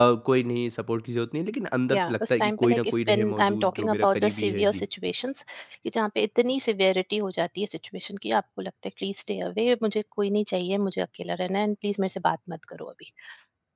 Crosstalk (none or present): present